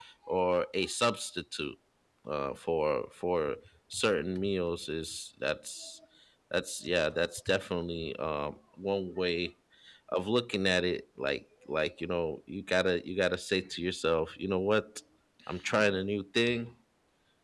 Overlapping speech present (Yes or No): No